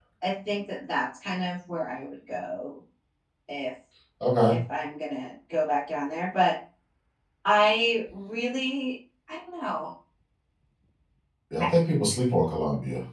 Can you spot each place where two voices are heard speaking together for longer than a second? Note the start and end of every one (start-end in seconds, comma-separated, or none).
none